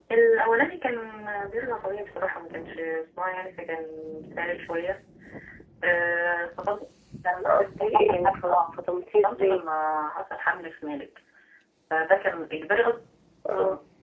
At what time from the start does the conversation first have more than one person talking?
7.3 s

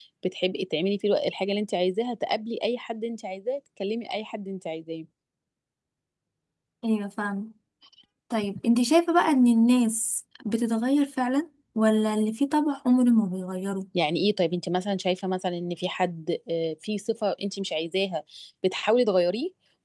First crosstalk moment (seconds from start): none

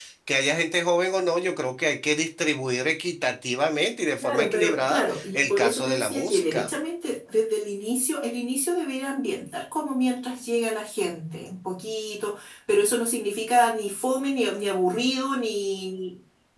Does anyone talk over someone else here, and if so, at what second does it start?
4.2 s

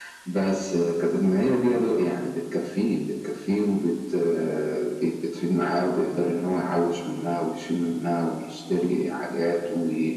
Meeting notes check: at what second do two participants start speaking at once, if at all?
none

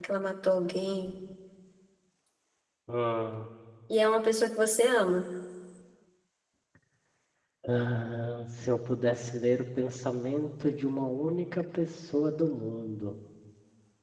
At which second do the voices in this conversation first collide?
none

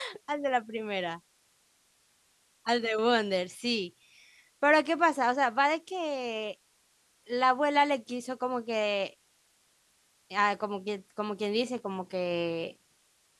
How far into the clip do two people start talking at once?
none

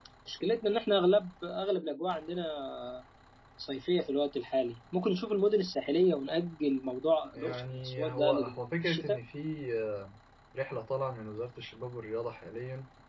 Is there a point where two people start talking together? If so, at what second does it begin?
7.3 s

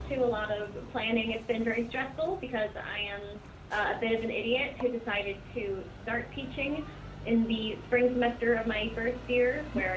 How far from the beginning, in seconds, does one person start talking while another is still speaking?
none

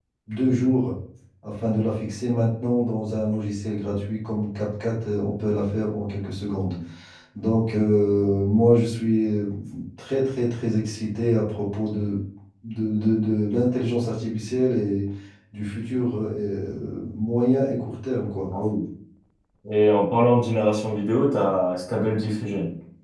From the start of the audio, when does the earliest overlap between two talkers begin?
none

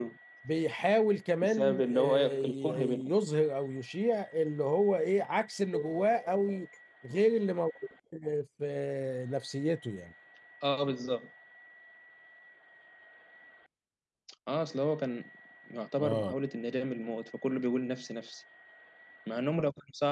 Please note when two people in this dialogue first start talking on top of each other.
1.4 s

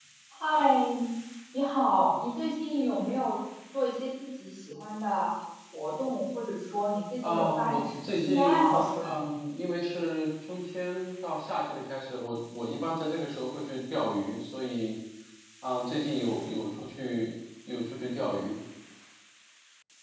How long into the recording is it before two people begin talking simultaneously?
7.2 s

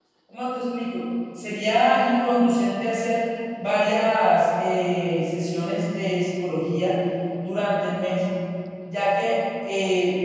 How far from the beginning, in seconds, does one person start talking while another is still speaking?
none

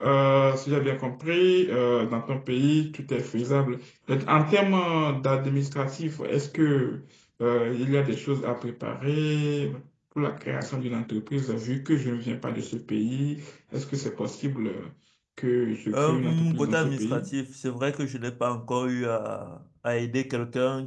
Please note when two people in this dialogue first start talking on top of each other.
15.9 s

